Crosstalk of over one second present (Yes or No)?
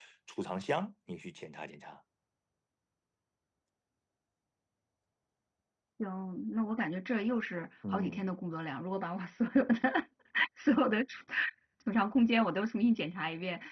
No